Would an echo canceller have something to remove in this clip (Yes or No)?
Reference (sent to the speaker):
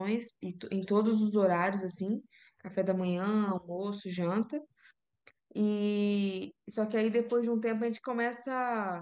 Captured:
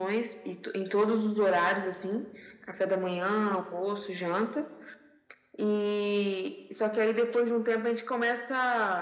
Yes